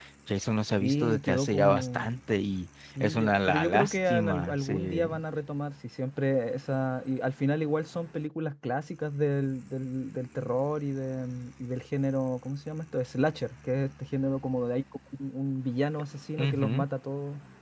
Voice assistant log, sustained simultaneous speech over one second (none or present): present